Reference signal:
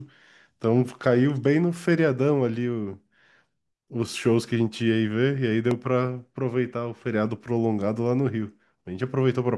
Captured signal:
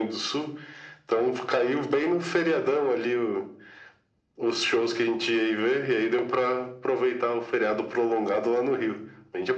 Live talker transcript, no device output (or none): none